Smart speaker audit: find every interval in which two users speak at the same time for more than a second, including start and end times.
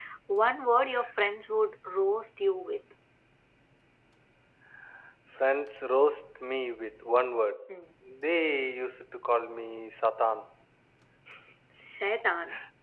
none

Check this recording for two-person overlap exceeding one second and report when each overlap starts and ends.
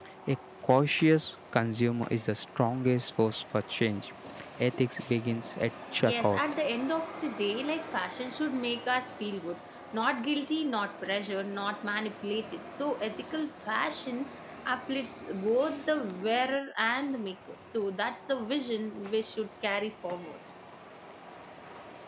none

